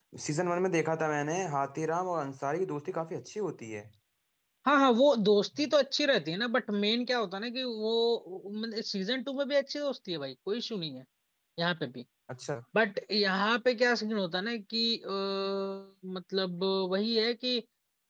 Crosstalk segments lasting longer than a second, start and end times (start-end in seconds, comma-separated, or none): none